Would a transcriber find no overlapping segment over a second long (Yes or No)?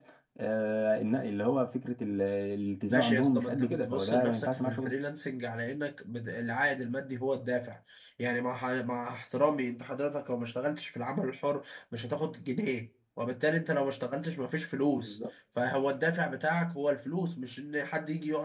No